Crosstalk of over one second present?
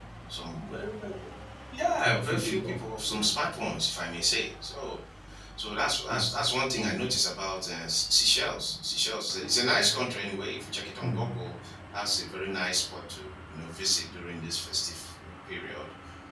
Yes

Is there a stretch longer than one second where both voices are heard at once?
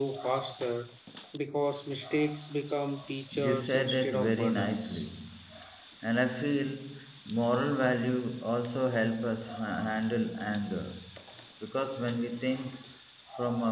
Yes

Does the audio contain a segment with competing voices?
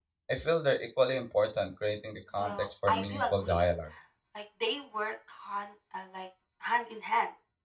Yes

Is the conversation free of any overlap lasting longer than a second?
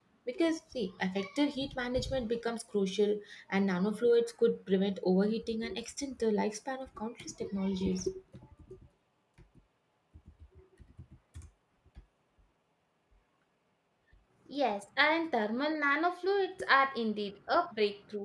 Yes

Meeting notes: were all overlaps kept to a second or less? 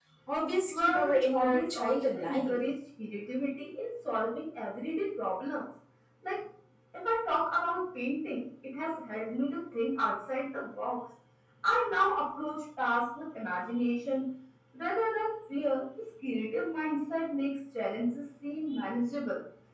No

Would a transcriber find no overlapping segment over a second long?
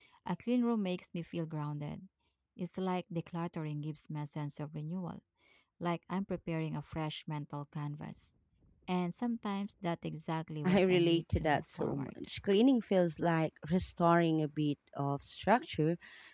No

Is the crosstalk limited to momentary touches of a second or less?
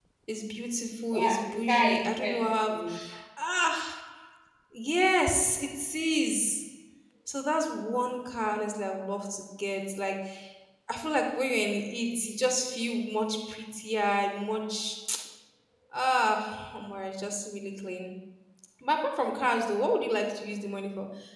No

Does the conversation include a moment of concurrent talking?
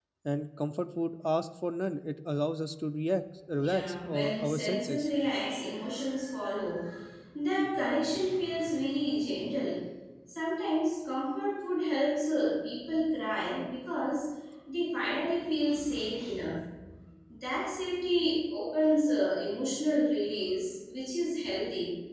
Yes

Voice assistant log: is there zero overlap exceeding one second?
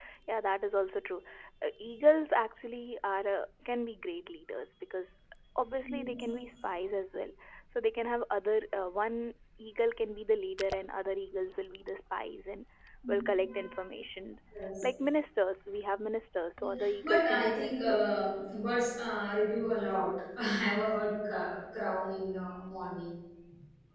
No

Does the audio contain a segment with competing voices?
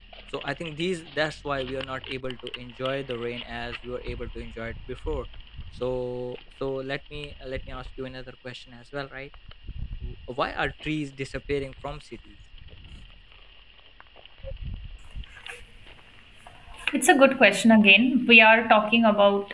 No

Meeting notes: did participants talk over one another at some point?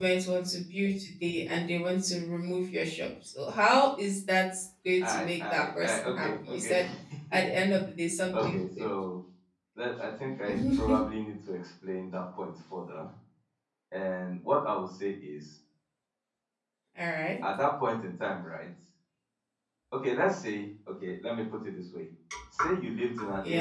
Yes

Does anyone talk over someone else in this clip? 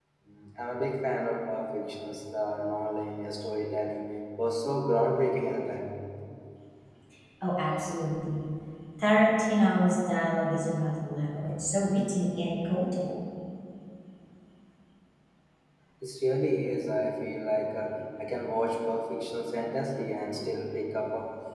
No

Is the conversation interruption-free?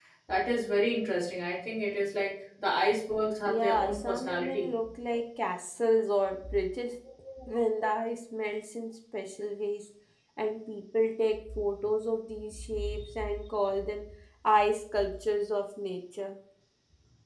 No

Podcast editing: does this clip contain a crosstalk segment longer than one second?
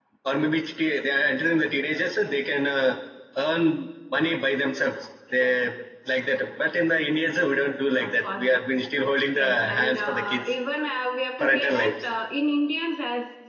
Yes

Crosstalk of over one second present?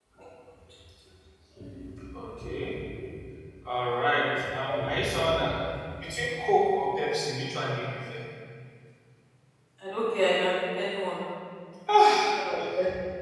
No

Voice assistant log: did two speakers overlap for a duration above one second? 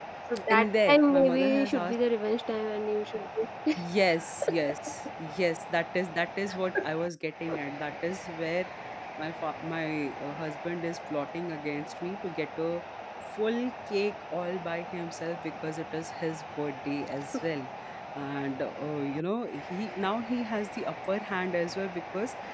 Yes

